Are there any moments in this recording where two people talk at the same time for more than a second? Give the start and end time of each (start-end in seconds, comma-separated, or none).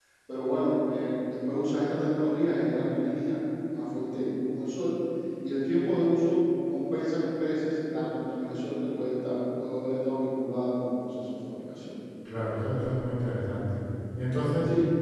none